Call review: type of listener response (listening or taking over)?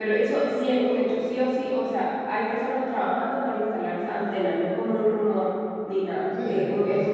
taking over